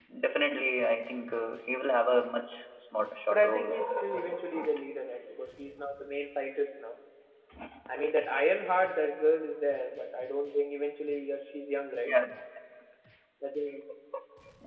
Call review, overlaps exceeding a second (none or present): present